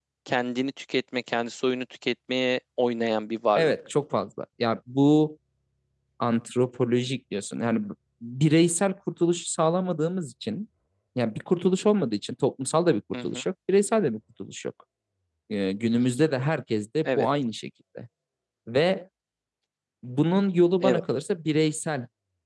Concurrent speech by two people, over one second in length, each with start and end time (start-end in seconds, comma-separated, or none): none